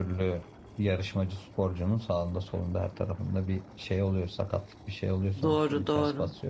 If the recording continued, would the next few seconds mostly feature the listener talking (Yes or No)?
Yes